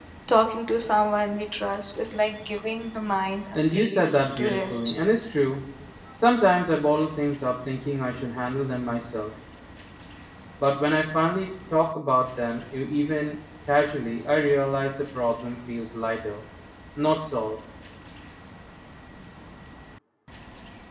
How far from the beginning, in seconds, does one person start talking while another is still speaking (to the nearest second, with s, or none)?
4 s